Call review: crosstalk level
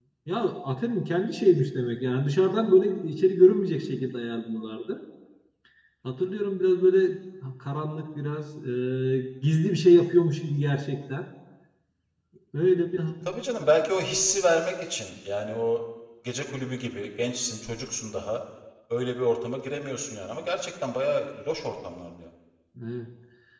none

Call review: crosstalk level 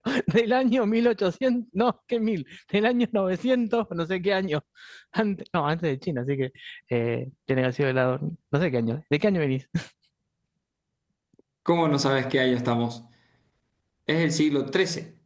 none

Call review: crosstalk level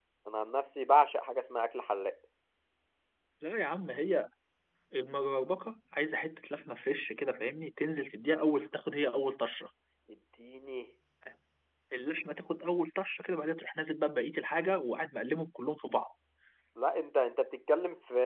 none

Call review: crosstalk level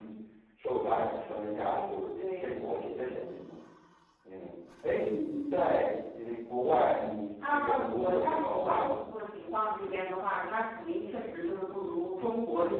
present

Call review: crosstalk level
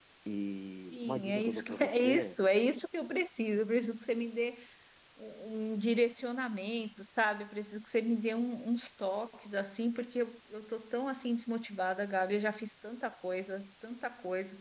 present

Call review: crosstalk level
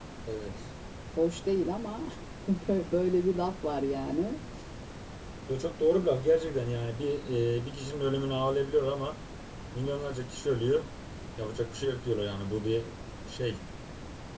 none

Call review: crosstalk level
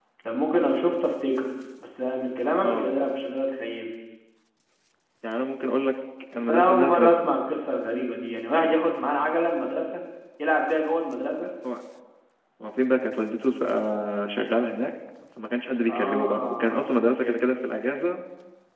present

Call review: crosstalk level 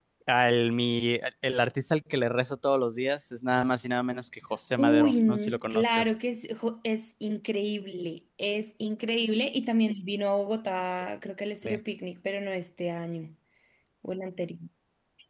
present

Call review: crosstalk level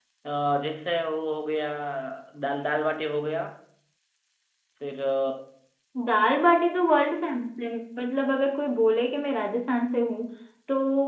none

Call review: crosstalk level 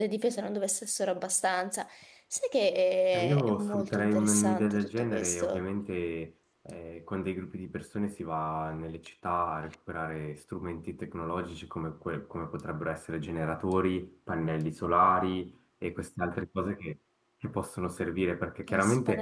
present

